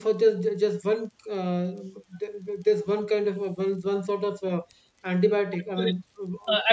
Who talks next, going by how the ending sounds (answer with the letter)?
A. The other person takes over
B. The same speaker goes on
A